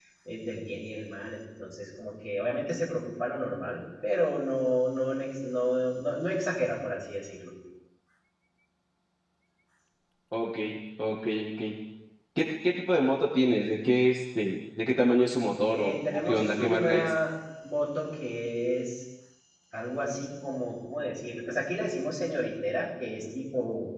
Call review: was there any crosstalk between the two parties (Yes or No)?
Yes